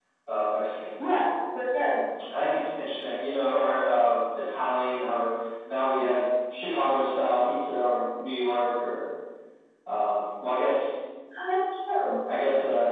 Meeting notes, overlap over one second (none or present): none